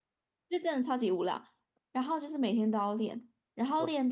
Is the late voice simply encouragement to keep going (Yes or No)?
Yes